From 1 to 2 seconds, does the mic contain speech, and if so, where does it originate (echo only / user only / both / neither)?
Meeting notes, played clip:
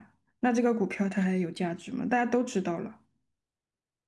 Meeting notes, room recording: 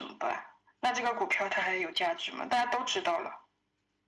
echo only